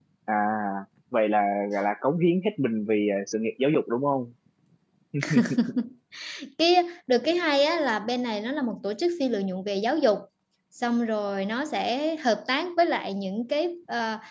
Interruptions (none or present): none